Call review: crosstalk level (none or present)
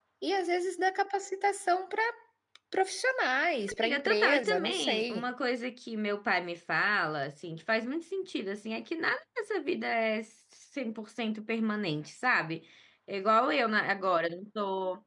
present